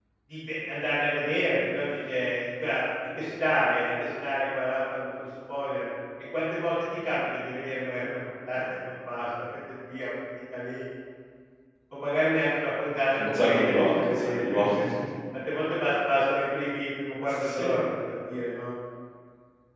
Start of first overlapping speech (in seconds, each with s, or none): 13.2 s